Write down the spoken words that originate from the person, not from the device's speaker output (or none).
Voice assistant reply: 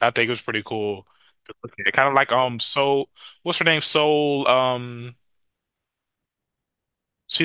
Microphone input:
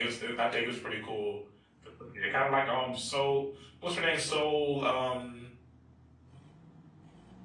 none